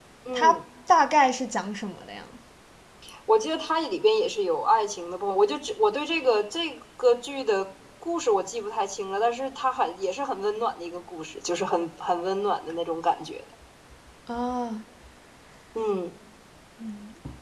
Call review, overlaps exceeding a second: none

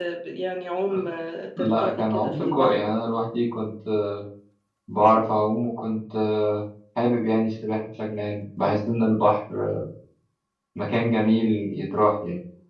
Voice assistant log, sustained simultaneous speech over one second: present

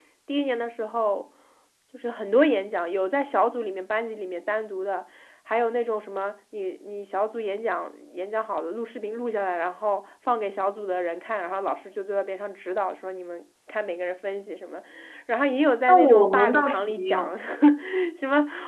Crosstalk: present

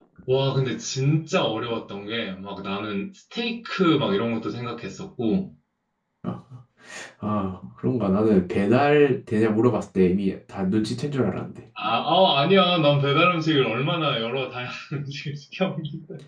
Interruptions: none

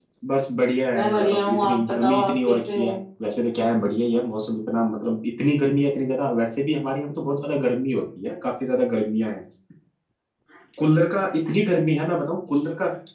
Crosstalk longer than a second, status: present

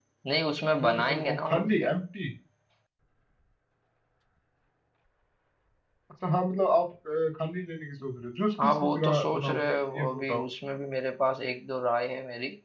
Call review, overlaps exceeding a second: present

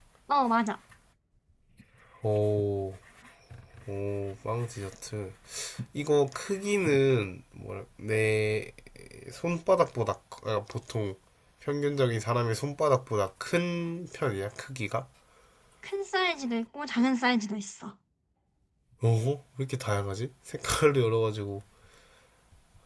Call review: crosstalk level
none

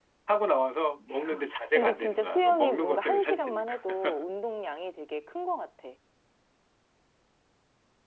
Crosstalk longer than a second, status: present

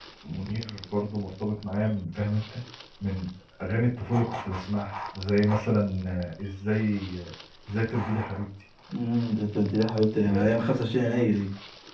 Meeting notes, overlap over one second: none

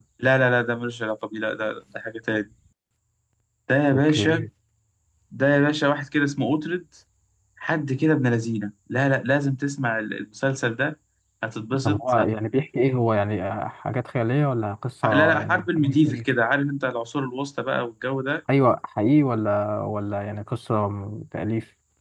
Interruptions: present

